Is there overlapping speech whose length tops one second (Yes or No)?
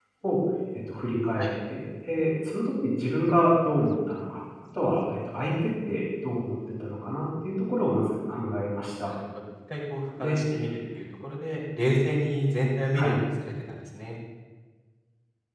No